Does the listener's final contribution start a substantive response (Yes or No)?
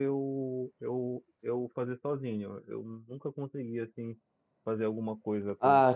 Yes